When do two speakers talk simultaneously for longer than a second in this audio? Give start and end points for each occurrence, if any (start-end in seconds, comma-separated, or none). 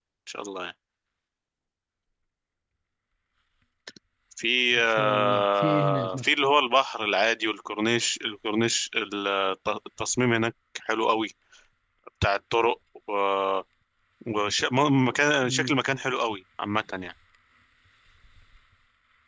4.8-6.3